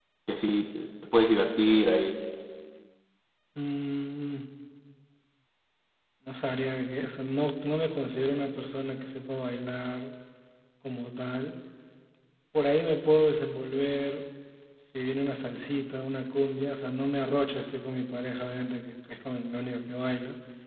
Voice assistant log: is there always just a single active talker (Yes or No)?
Yes